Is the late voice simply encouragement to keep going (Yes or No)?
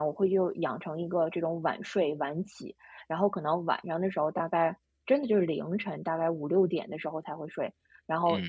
Yes